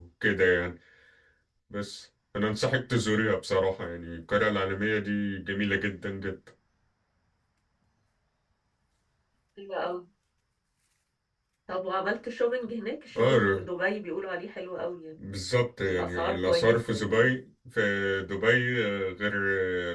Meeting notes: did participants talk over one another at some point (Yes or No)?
Yes